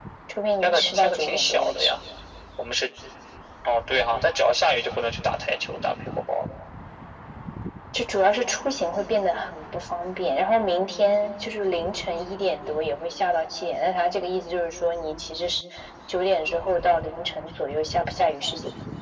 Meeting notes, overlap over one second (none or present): present